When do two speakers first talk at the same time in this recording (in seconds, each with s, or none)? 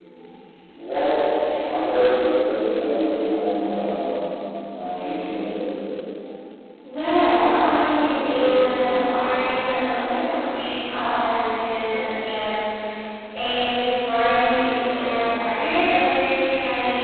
8.0 s